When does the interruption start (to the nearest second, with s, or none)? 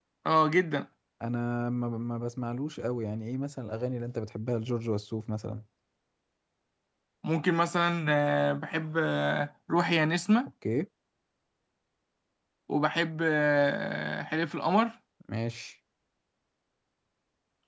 none